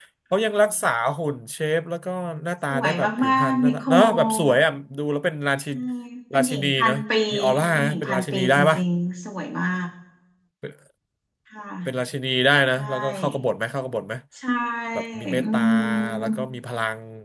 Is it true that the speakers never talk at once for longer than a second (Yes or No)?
No